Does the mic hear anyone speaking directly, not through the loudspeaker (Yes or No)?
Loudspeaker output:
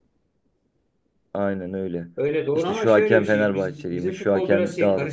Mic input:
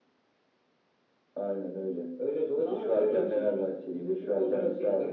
No